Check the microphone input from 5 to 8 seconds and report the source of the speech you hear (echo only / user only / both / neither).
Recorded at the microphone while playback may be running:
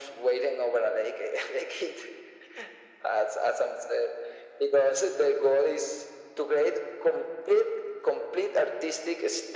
echo only